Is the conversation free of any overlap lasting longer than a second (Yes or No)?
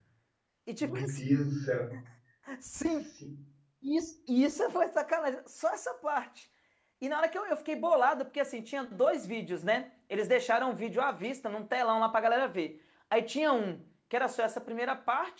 Yes